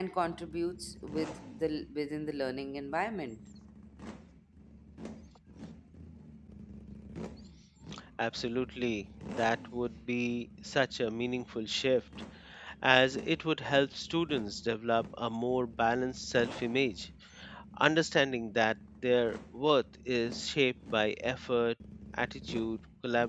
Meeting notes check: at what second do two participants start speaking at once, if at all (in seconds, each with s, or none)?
none